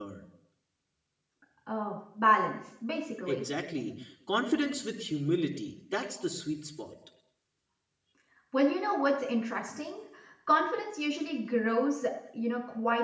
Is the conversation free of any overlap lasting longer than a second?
Yes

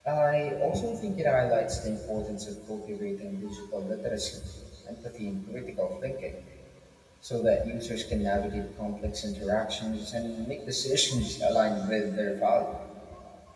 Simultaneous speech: No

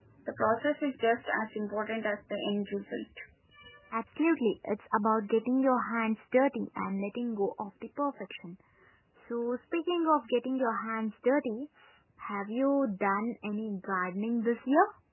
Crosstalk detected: No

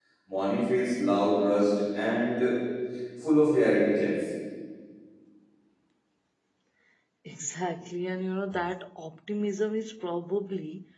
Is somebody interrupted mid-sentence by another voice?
No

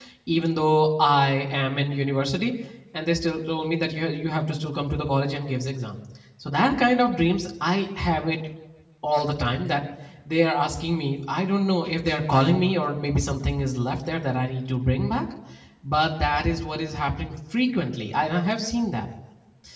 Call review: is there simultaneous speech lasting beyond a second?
No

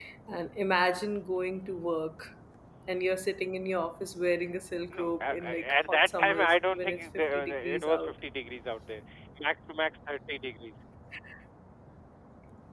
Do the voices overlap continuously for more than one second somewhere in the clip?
Yes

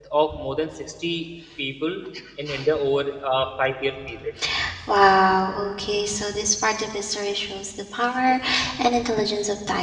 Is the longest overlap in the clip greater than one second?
No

